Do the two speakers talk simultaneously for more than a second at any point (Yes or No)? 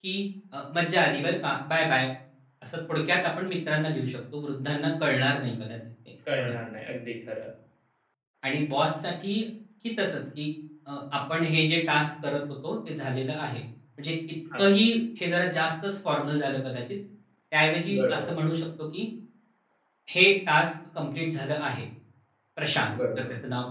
No